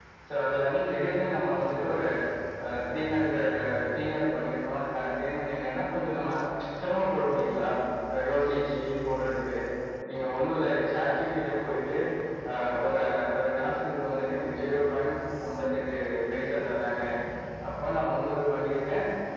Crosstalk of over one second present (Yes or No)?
No